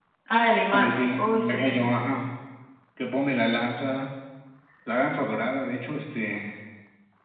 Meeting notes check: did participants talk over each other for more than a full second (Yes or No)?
Yes